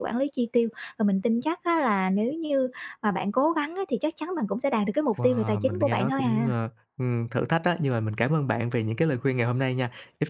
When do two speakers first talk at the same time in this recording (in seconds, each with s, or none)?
5.2 s